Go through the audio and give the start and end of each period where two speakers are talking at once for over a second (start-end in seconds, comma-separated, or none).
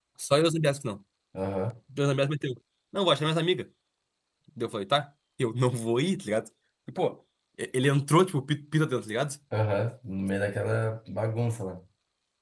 none